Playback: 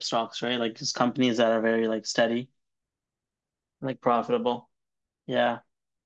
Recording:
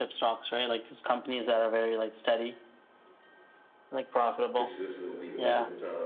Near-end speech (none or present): present